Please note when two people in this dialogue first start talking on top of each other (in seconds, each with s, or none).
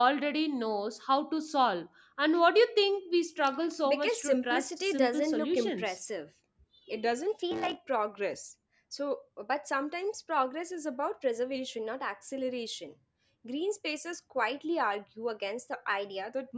3.8 s